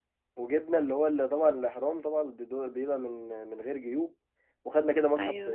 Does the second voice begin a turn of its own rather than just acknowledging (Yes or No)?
No